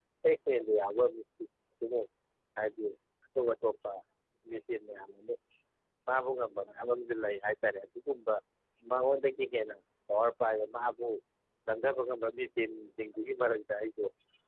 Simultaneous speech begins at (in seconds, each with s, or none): none